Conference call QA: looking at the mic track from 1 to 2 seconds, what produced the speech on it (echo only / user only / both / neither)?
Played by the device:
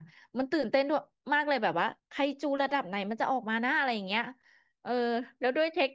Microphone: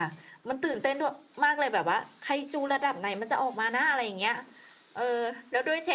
echo only